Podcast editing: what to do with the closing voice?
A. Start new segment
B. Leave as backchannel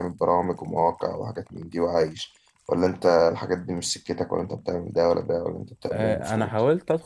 A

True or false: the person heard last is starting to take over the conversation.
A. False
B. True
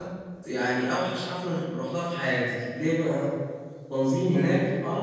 A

